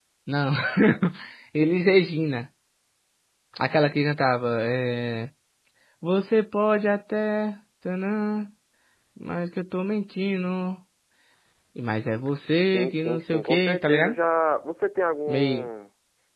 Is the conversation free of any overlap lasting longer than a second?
No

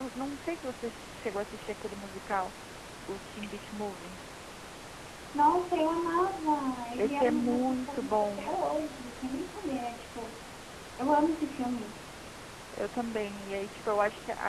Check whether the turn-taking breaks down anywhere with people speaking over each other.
Yes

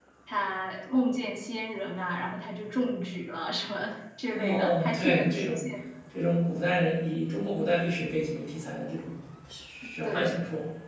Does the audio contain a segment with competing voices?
Yes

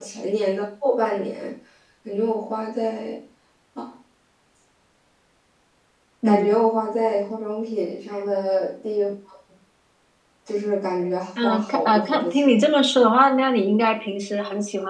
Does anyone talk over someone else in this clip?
Yes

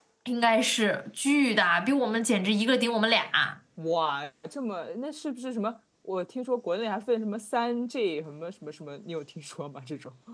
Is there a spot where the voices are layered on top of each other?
No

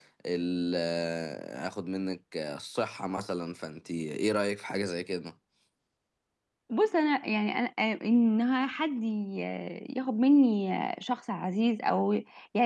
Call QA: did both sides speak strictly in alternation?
Yes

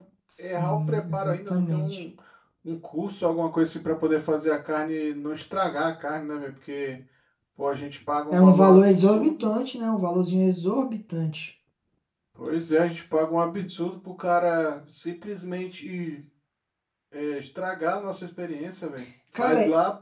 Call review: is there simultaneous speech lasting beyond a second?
Yes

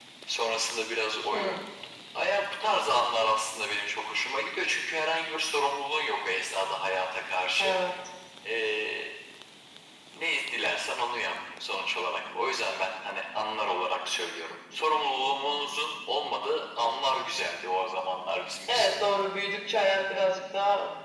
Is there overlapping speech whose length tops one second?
No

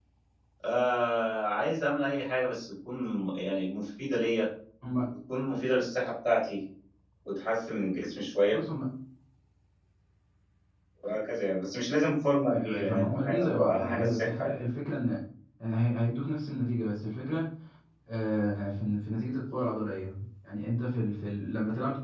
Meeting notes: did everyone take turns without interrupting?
No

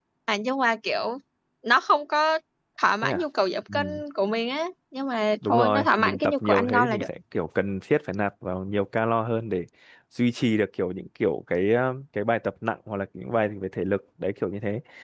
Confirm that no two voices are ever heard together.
No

